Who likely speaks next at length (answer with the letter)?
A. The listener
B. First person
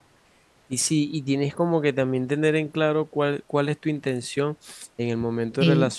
B